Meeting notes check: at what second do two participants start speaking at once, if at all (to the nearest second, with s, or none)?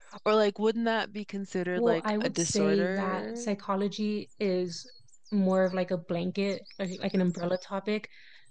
2 s